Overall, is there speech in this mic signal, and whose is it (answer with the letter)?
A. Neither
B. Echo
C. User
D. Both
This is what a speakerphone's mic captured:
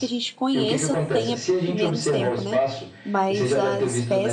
D